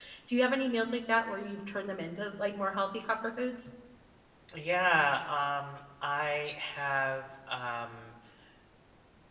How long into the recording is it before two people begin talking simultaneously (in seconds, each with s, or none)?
none